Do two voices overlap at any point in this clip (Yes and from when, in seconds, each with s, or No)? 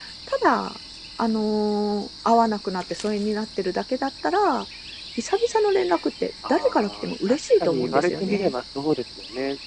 Yes, from 6.4 s